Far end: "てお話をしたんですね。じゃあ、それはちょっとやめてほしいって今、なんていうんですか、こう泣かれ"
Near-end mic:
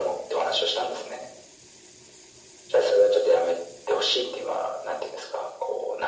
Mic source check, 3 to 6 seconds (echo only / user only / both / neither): echo only